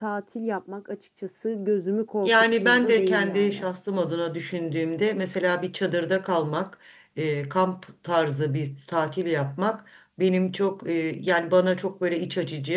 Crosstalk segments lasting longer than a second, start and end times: 2.2-3.7

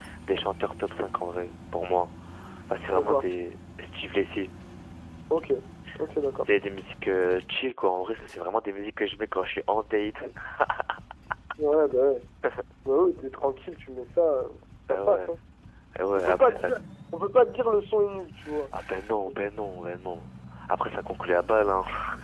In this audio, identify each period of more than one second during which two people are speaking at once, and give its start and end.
none

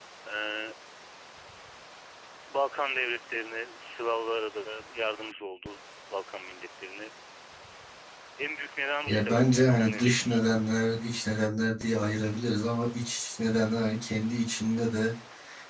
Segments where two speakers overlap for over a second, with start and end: 9.1-10.4

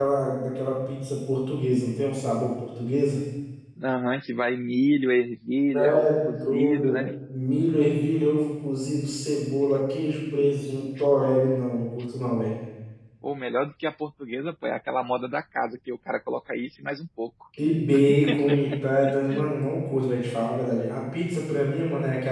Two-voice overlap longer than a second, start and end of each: 5.7-7.0

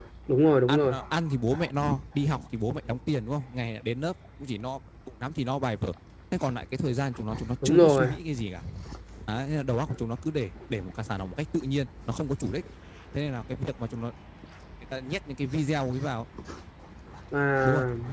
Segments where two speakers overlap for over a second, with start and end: none

